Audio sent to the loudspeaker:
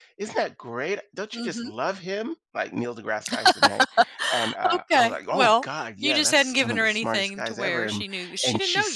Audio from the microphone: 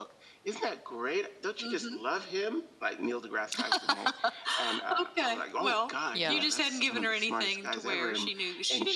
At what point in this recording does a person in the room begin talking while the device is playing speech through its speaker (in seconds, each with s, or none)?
6.1 s